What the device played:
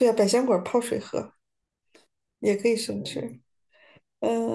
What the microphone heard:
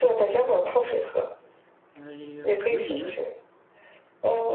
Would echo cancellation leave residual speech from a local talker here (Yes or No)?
Yes